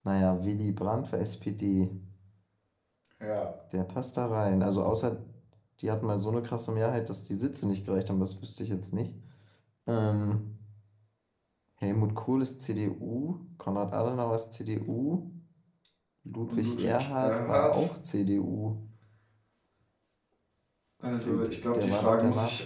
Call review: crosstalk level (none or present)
present